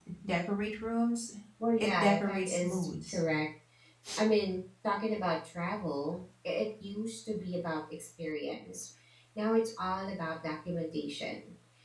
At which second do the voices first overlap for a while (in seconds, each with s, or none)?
1.8 s